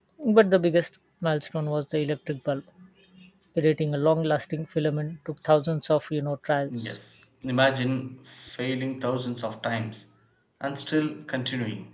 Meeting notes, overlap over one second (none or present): none